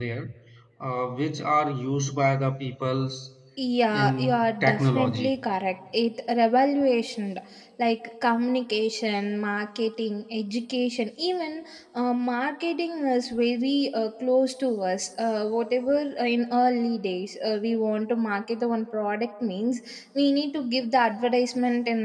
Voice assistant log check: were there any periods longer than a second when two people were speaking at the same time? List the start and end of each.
3.9-5.3

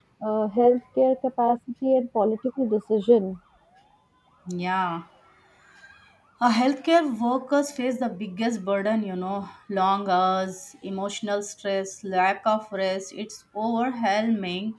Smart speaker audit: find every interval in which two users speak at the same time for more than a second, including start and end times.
none

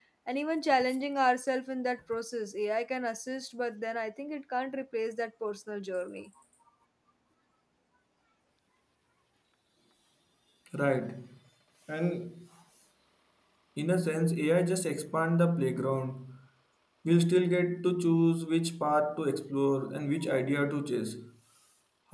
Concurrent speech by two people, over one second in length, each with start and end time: none

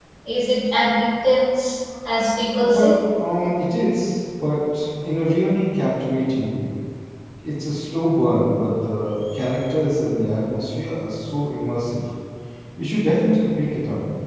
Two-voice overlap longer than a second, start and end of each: none

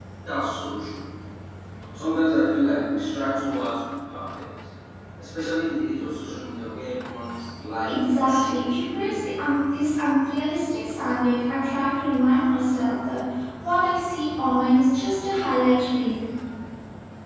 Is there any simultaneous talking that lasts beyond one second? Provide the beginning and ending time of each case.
7.8-9.1

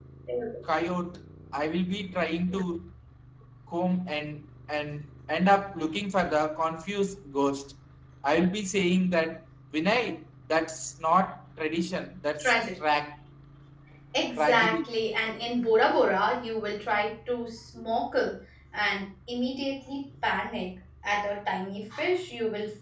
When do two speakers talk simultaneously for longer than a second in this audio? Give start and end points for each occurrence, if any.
none

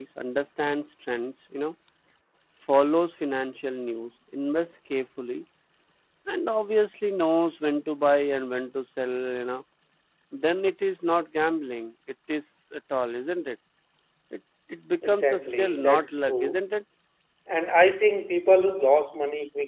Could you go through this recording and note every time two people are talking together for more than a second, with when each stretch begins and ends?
15.0-16.6

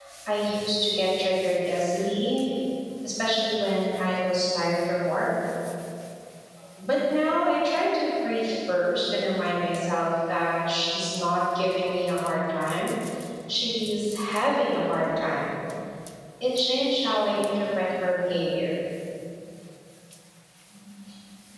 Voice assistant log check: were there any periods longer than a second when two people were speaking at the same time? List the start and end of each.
none

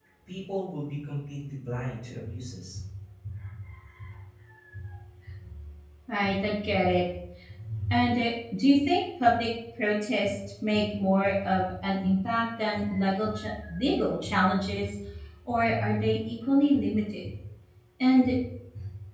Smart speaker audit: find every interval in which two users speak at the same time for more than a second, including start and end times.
none

